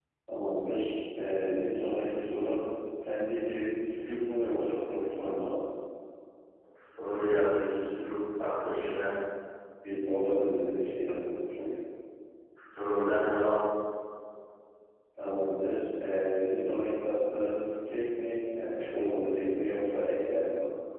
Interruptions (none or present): none